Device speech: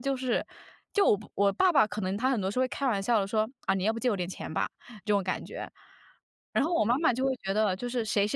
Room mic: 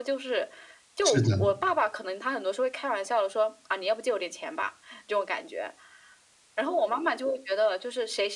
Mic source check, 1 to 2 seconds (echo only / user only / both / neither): both